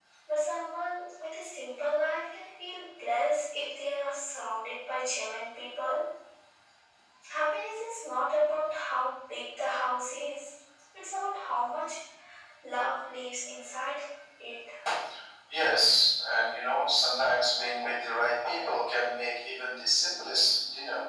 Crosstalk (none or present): none